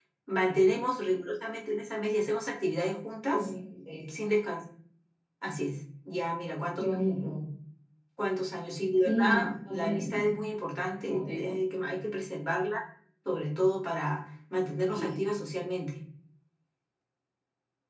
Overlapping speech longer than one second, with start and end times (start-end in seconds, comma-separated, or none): 9.0-10.3